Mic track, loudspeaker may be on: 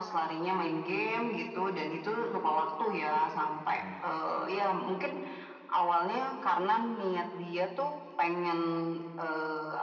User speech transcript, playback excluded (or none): Oke.